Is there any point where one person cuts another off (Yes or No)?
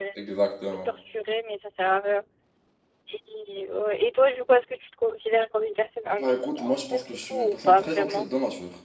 Yes